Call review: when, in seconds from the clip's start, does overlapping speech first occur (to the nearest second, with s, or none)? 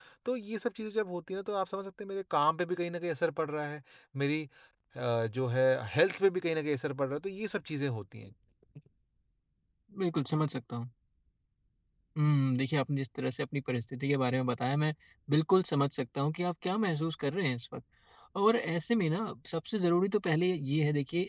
none